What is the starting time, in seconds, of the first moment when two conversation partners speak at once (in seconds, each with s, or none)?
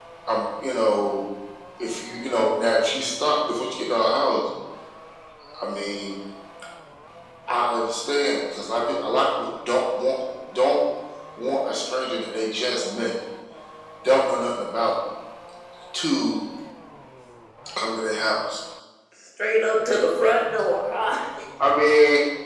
none